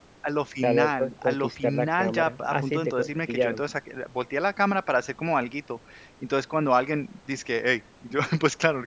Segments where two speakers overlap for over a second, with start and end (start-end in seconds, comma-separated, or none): 0.6-3.6